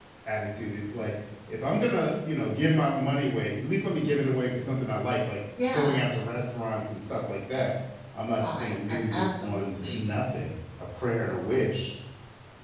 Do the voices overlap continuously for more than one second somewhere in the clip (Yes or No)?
Yes